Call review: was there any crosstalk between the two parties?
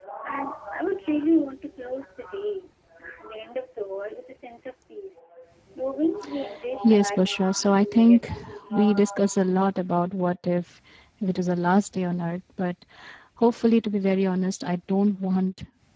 Yes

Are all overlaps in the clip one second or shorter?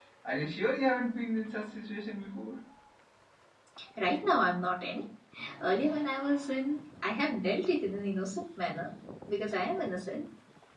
Yes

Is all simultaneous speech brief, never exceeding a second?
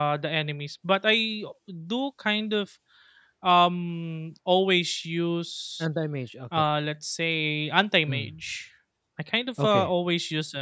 Yes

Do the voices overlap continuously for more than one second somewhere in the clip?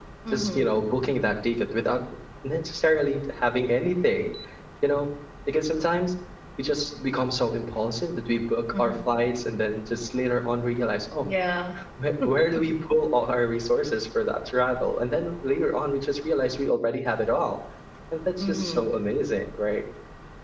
No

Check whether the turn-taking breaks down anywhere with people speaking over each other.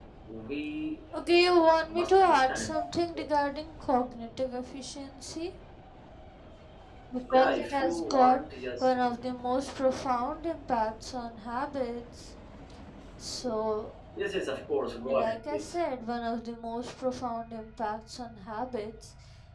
Yes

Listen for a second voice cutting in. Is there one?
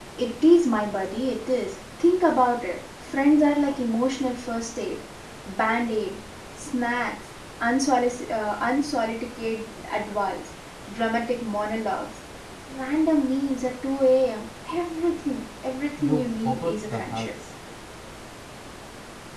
Yes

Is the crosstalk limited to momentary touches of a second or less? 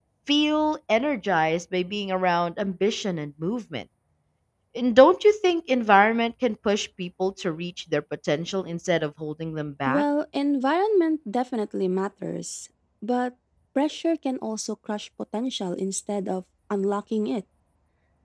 Yes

